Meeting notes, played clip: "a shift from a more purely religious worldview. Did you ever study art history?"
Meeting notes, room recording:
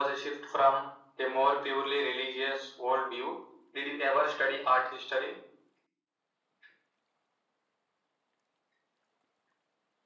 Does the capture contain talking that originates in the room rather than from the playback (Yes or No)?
No